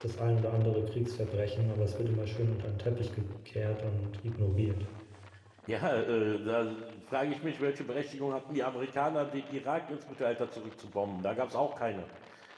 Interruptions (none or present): none